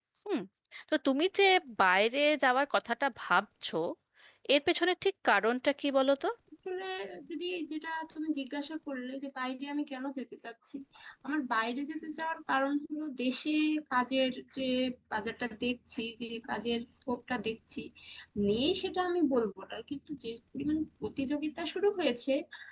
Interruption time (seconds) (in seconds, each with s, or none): none